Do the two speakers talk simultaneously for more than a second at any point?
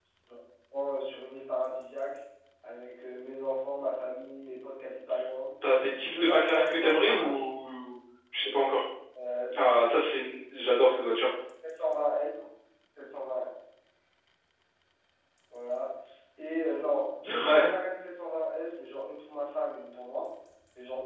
Yes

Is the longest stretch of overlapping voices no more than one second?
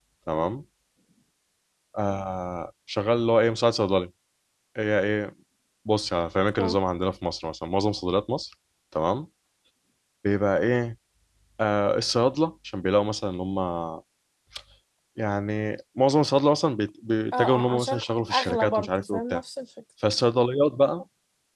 No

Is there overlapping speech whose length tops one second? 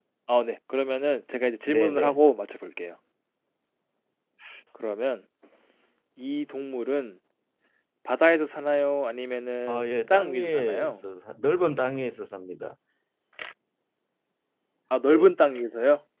Yes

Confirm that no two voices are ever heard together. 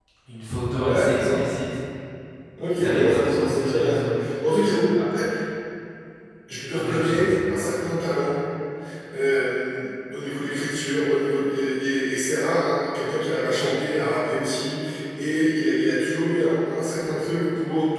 No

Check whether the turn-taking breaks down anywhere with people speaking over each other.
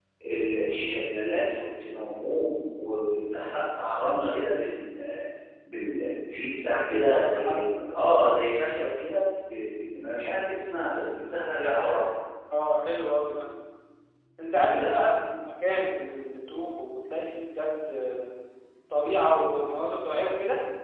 Yes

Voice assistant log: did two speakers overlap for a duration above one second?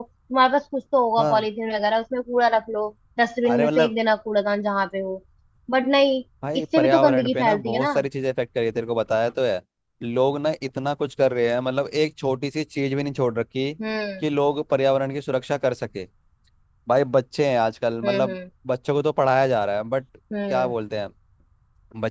Yes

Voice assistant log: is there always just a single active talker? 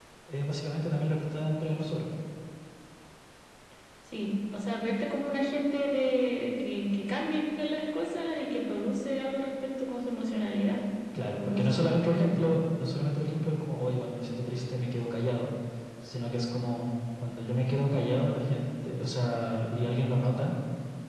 No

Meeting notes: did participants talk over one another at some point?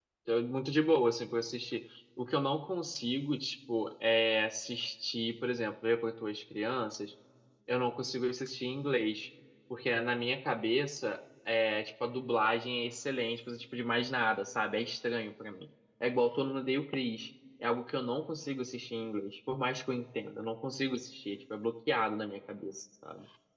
No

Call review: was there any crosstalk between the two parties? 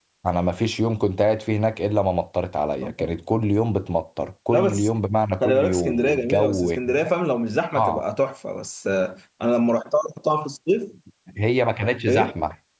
Yes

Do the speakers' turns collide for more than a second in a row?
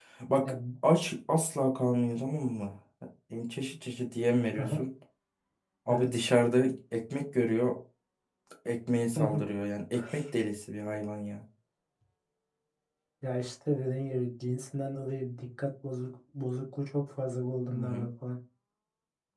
No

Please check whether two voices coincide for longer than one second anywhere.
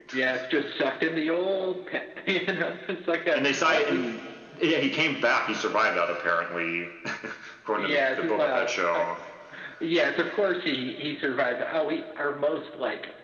Yes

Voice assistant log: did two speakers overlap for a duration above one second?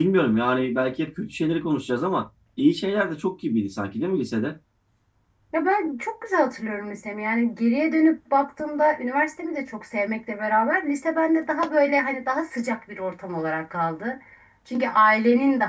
No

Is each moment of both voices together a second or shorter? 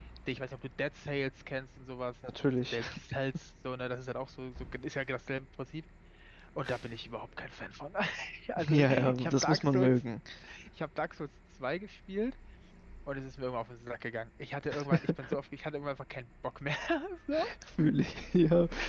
No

